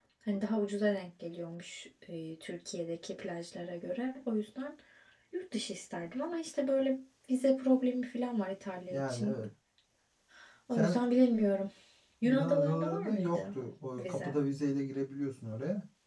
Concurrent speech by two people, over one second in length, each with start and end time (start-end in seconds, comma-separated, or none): 12.2-13.6